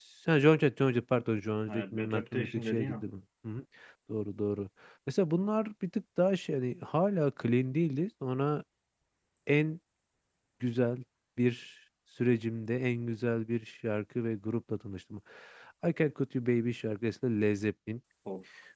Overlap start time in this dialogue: 1.7 s

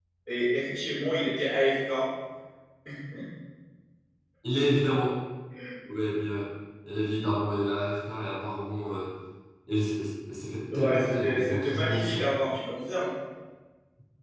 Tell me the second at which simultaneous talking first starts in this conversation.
10.7 s

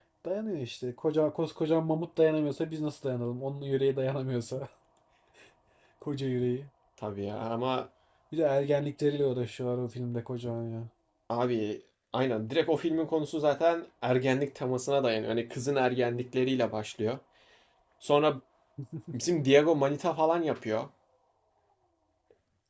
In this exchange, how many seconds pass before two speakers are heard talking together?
none

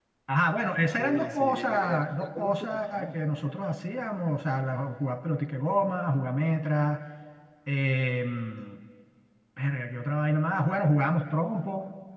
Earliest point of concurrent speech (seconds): 1.0 s

